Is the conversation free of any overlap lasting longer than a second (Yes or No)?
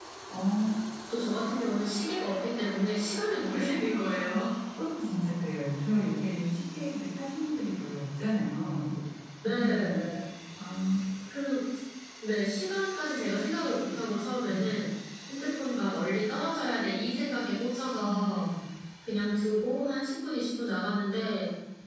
Yes